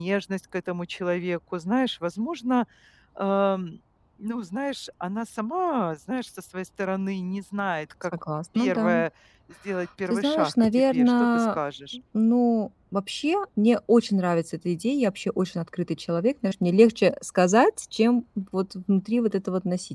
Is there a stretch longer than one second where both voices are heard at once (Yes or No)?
Yes